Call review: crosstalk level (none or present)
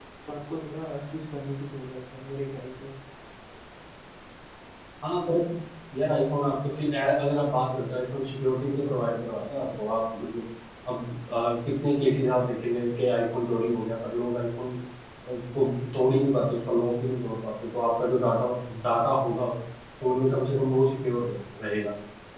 none